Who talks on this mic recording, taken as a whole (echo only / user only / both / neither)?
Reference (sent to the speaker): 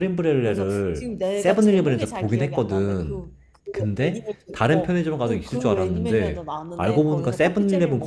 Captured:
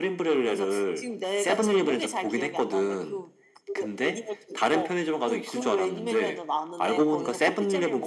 echo only